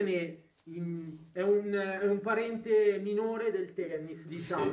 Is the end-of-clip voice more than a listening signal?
Yes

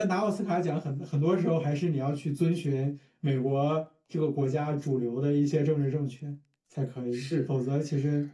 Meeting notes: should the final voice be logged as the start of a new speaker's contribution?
No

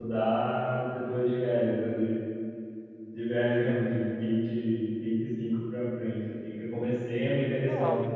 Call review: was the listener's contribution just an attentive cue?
Yes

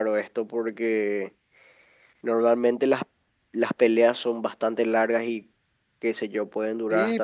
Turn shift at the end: Yes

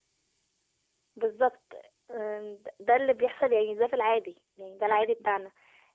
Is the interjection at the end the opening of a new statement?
No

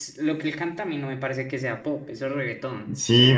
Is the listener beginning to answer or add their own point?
Yes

